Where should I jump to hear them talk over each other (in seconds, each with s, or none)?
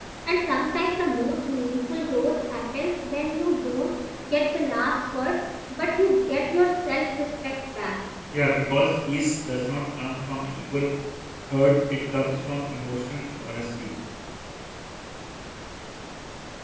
none